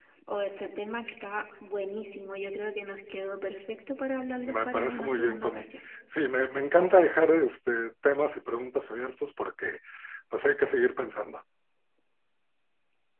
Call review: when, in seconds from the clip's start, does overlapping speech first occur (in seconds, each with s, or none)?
4.4 s